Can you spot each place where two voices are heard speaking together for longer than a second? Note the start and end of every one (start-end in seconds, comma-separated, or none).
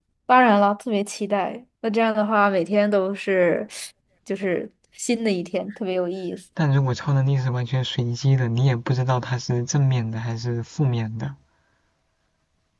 none